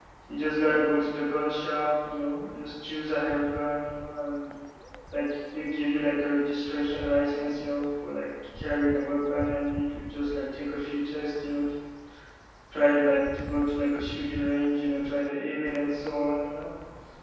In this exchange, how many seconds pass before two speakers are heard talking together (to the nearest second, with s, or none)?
none